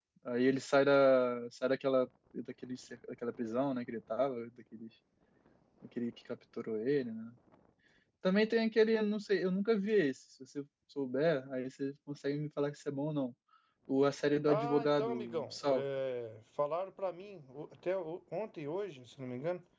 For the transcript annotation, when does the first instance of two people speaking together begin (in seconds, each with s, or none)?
14.5 s